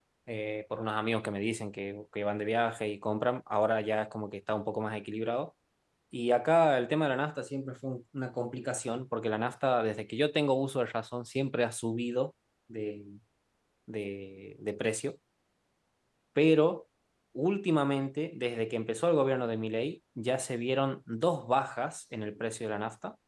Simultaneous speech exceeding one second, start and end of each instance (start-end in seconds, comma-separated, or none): none